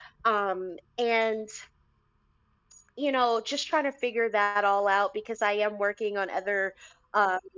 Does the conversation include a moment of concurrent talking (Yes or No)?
No